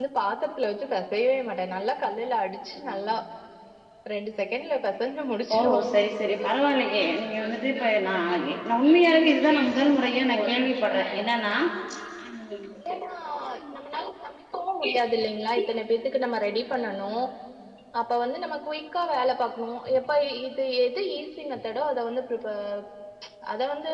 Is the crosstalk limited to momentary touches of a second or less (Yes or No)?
Yes